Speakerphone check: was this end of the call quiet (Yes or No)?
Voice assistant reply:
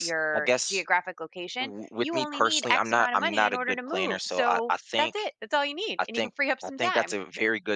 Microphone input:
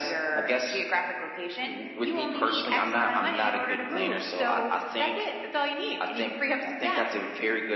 Yes